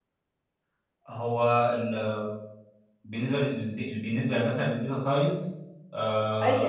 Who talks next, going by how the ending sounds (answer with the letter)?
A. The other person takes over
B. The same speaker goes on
A